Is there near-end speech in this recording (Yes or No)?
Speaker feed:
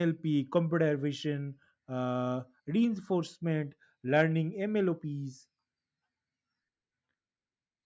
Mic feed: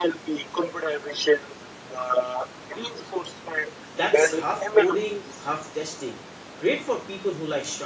Yes